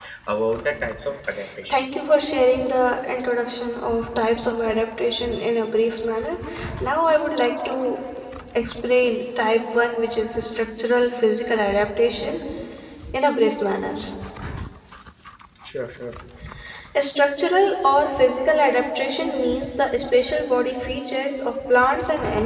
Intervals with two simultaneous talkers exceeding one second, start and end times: none

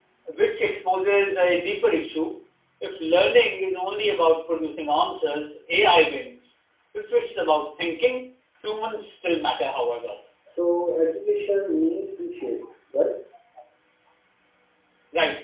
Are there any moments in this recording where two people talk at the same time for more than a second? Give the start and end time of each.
none

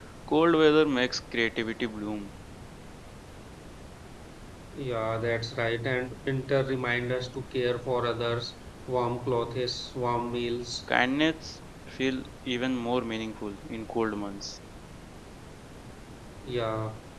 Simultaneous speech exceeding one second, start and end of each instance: none

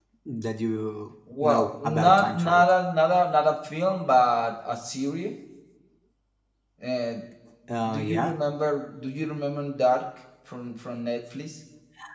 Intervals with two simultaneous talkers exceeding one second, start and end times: 1.4-2.6

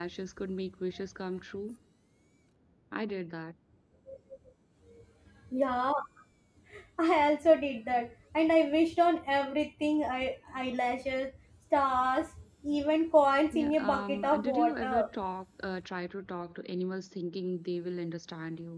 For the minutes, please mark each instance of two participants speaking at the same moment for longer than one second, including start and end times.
13.5-15.1

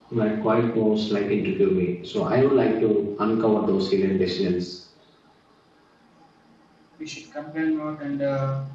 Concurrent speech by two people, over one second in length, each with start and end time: none

